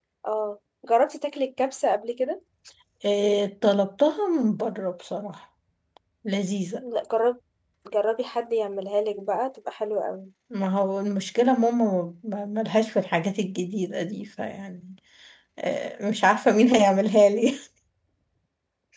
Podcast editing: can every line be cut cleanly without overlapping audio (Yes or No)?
Yes